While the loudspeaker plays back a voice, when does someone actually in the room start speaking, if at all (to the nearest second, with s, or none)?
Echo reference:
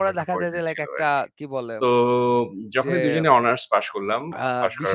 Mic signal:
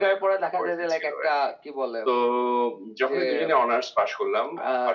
none